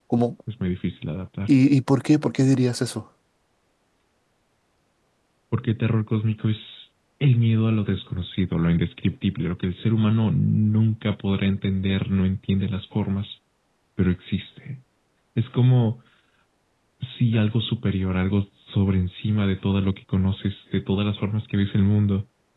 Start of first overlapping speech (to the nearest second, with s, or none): none